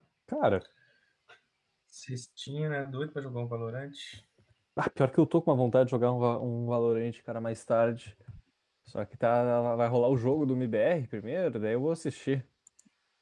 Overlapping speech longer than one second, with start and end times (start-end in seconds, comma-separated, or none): none